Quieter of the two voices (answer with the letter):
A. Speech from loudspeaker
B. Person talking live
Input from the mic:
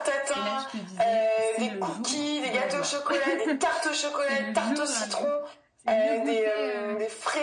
B